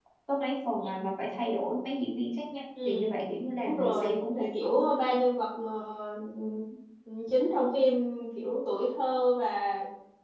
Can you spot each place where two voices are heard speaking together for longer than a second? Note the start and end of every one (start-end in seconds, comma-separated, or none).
3.6-4.9